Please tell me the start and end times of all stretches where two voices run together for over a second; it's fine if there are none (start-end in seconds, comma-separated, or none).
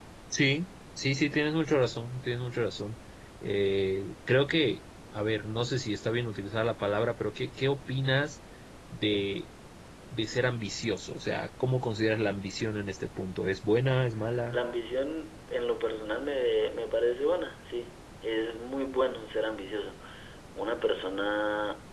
none